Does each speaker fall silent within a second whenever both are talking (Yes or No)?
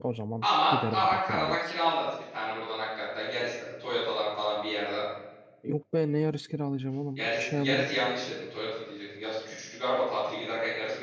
No